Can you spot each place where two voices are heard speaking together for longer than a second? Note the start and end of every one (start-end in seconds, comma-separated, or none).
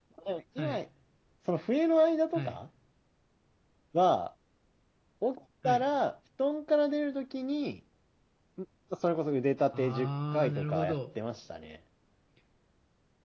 9.7-11.0